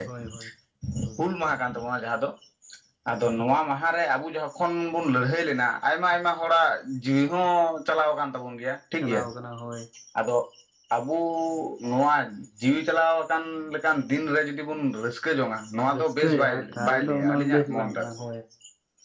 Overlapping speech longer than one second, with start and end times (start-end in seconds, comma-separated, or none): 15.9-18.1